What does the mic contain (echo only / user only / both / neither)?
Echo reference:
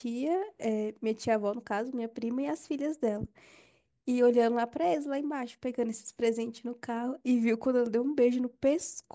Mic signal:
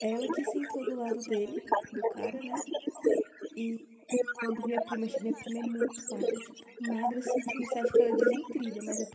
both